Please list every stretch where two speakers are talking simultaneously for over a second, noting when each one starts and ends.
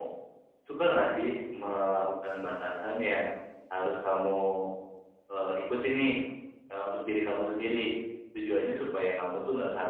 none

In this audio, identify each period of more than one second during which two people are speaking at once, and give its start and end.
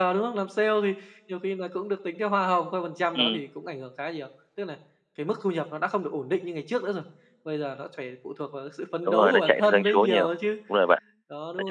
9.1-10.3

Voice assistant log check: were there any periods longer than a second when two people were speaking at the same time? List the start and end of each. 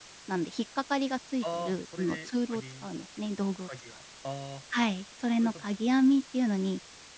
1.4-2.9

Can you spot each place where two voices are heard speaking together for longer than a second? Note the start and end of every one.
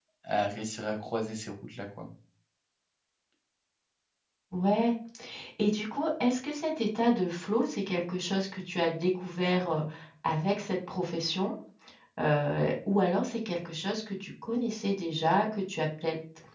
none

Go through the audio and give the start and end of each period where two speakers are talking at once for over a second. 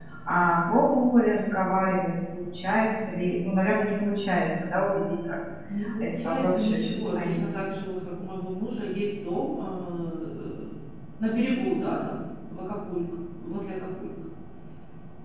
6.0-7.4

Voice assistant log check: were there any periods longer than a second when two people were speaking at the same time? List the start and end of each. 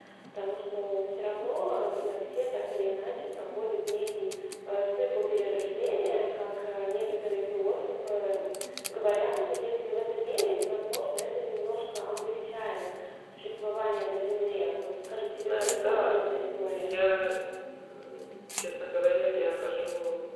15.3-17.0

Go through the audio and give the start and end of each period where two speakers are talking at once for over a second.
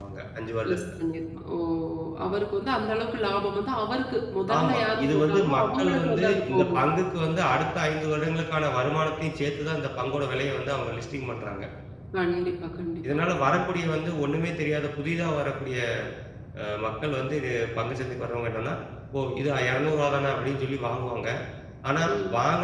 4.6-6.8

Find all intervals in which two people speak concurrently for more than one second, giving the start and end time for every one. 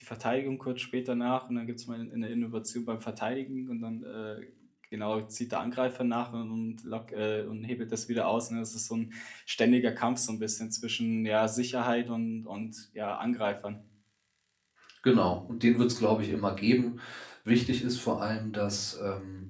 none

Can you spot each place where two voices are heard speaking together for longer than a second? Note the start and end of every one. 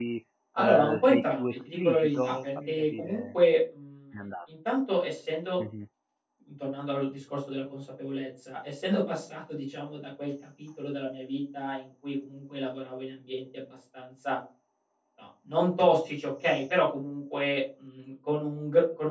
0.6-3.2

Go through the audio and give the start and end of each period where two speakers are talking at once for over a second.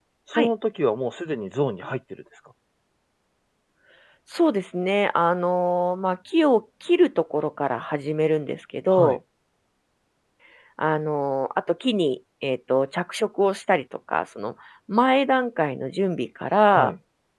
none

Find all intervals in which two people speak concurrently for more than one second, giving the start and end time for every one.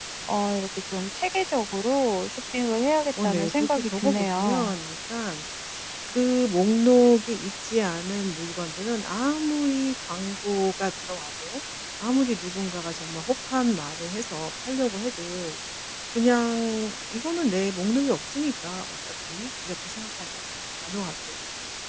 3.2-4.8

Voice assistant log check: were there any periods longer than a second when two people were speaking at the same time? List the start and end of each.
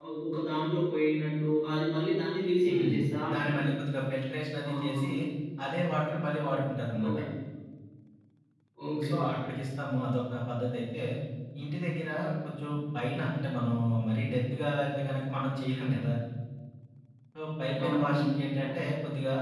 none

